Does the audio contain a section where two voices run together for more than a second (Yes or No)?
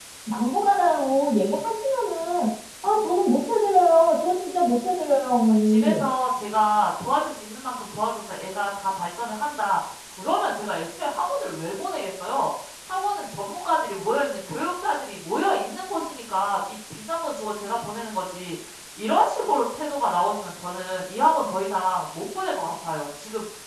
No